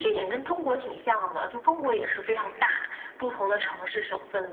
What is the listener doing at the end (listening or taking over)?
listening